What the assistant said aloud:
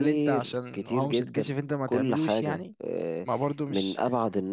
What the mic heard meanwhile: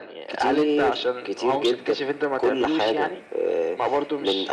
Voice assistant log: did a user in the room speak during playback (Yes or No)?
No